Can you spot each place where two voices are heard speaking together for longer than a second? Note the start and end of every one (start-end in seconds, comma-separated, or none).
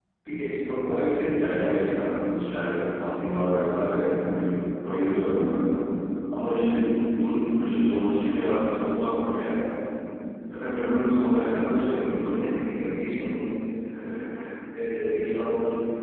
none